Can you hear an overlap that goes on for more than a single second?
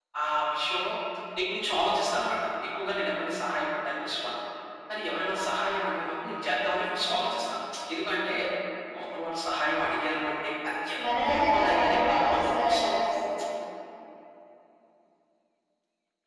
Yes, from 11.0 s

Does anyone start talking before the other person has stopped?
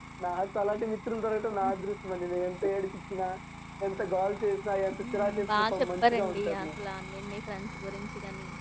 Yes, from 5.0 s

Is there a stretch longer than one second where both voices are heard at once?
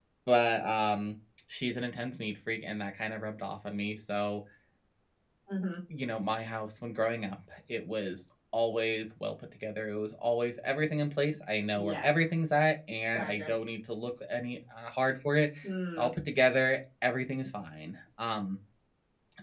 No

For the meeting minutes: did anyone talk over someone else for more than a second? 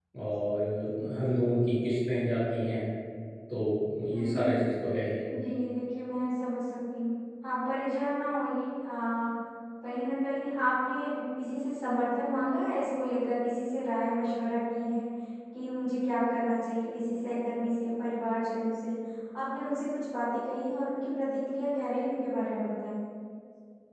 No

